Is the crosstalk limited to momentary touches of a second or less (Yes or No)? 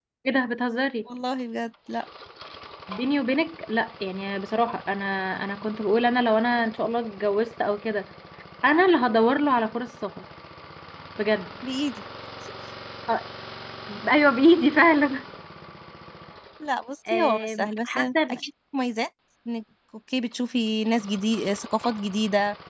No